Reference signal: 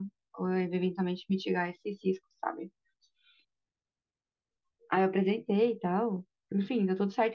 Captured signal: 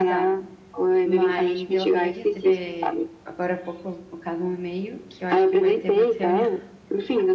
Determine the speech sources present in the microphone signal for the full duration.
both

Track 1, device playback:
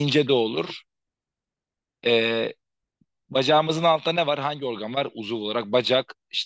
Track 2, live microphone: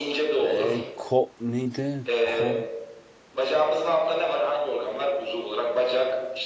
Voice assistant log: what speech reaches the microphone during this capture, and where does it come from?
both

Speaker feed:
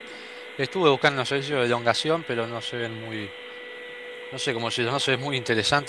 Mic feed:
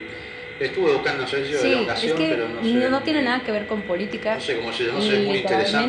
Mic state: both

